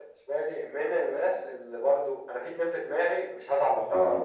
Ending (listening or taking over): listening